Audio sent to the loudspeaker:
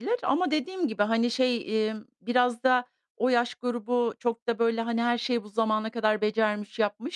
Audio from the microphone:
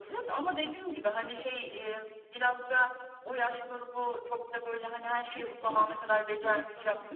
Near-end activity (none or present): present